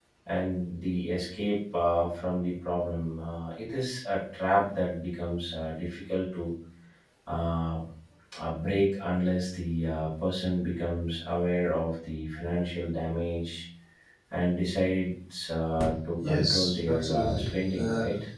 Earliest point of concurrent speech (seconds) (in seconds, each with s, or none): 16.2 s